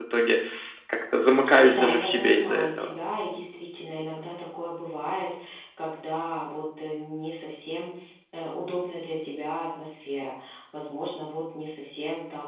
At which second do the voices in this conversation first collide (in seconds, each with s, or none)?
1.7 s